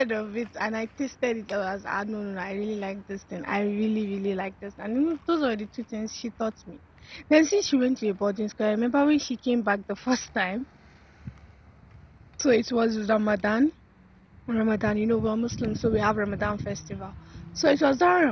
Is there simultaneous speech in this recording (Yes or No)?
No